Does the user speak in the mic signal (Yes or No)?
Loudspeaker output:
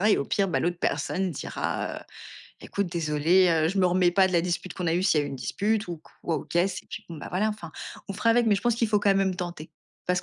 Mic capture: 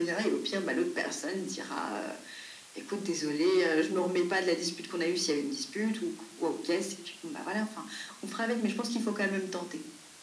No